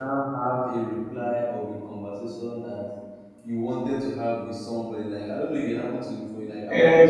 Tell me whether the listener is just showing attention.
No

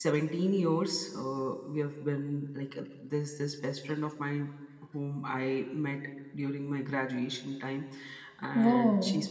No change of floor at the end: Yes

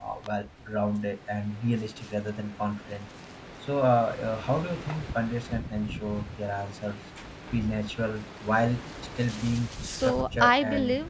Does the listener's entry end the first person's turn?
Yes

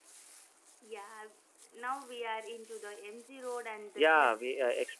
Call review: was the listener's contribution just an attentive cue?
No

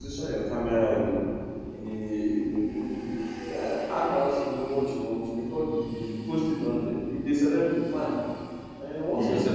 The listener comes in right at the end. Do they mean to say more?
No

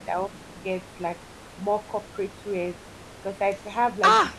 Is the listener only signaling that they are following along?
No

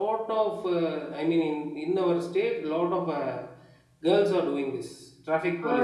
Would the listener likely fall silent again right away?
No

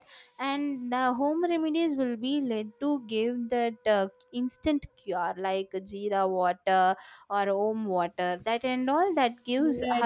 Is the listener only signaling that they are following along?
No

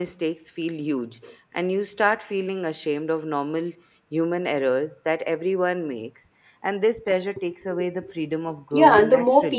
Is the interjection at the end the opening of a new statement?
Yes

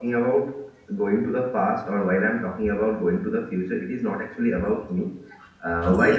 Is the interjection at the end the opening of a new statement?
No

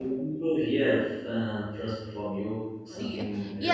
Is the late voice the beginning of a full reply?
Yes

